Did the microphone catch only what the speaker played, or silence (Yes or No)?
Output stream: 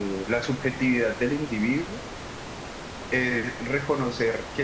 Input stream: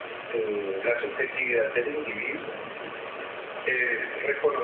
Yes